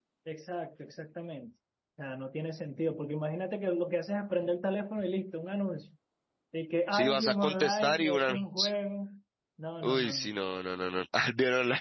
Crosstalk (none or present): present